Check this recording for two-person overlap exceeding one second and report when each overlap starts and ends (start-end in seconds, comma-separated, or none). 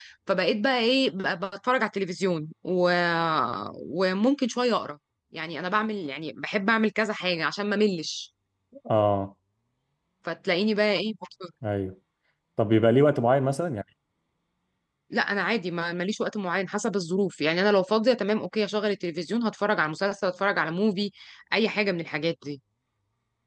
none